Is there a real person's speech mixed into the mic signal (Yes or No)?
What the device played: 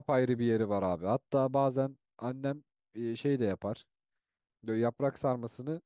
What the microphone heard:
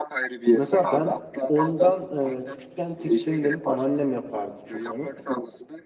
Yes